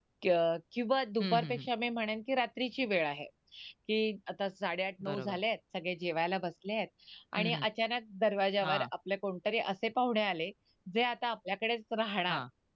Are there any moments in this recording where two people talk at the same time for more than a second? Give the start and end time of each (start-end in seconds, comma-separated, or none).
none